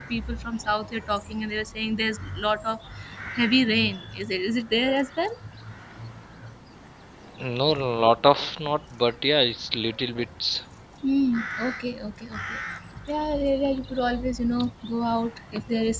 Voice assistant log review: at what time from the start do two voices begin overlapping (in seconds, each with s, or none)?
none